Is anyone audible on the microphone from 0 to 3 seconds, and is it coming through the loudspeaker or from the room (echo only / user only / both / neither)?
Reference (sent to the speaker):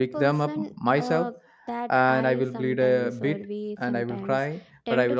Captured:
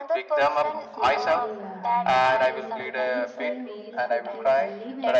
both